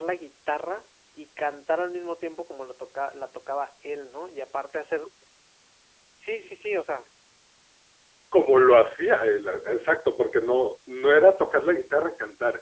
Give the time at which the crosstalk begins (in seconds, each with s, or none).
none